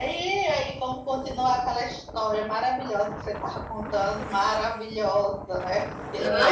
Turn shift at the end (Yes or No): Yes